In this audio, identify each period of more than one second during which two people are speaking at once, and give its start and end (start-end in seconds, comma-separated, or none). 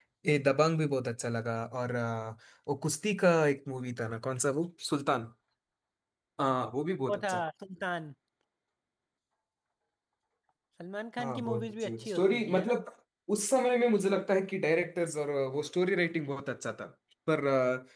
11.2-12.8